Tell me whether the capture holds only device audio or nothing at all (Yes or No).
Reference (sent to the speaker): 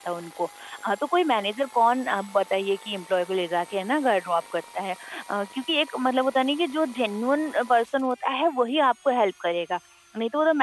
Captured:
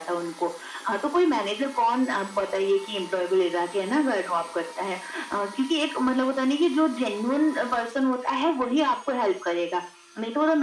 Yes